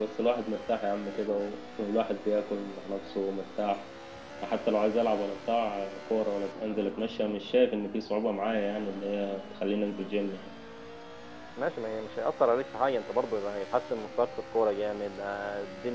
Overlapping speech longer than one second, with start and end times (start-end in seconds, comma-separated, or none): none